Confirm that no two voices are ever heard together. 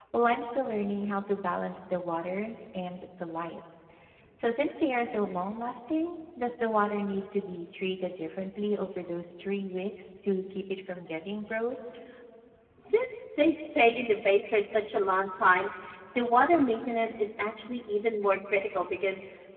Yes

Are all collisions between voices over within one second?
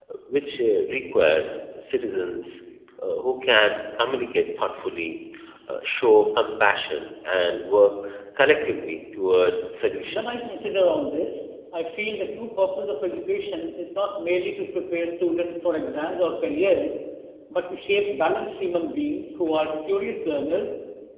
Yes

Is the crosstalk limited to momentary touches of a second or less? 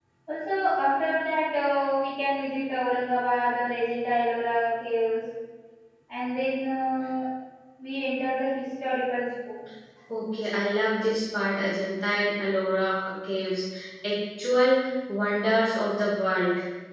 Yes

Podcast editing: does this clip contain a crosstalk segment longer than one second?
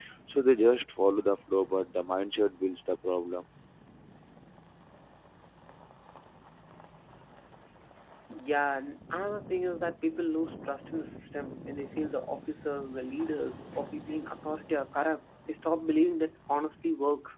No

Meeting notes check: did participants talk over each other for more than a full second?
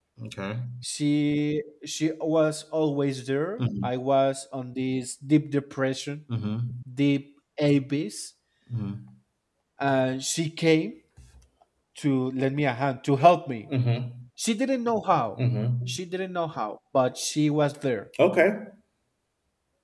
No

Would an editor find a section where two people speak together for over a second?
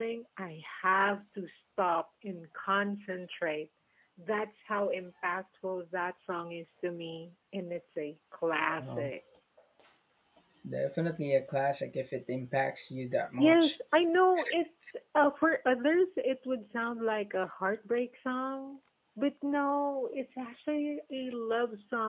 No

